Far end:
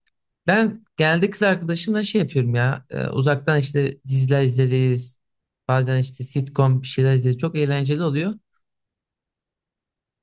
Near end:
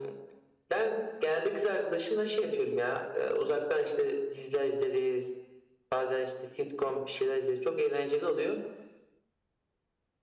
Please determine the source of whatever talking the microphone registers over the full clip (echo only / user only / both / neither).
echo only